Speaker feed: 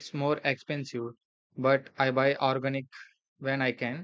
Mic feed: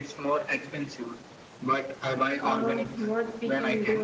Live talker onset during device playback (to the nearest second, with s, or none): 2 s